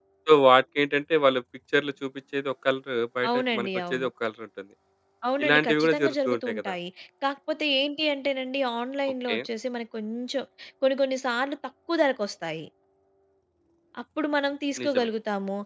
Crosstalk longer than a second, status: present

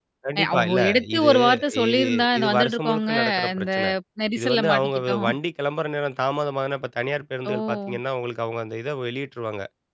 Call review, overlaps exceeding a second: present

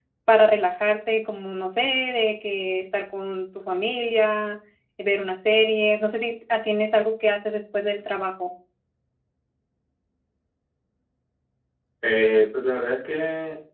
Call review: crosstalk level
none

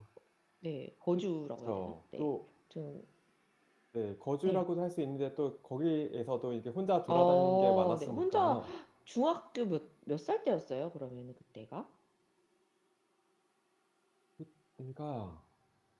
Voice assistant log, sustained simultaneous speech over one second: present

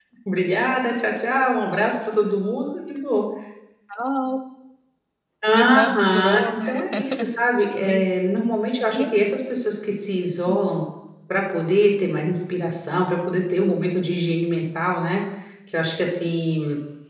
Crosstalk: present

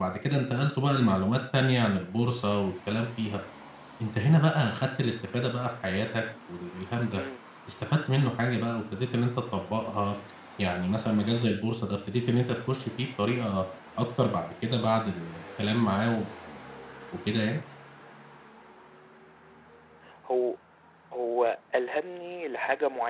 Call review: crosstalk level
none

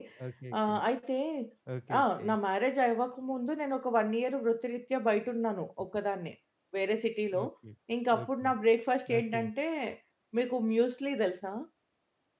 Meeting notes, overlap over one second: none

